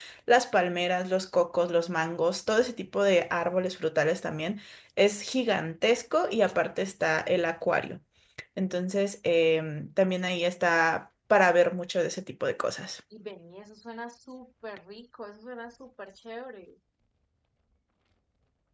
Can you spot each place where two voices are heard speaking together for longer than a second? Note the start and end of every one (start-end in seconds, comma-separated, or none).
none